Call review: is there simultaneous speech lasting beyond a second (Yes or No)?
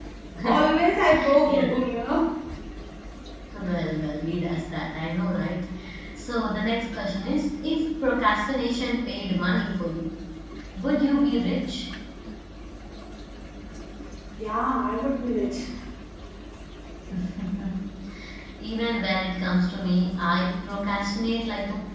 No